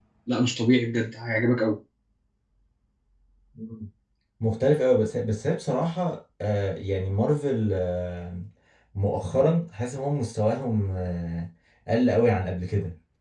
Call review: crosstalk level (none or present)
none